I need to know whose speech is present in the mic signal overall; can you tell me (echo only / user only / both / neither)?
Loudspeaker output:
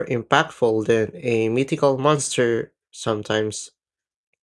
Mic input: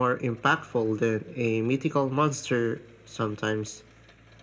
echo only